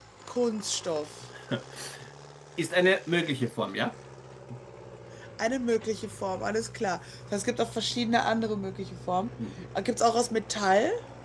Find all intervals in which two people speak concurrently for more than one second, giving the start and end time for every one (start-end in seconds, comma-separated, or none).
none